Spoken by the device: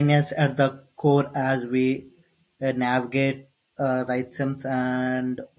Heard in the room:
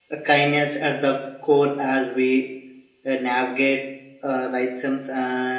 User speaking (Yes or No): No